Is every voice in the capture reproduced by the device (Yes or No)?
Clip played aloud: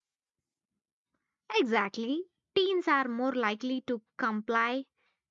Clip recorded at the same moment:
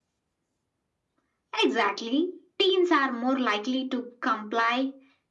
Yes